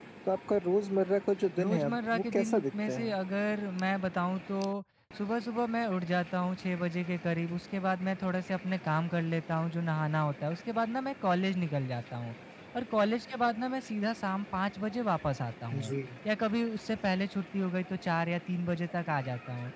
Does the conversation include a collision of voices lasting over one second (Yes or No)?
Yes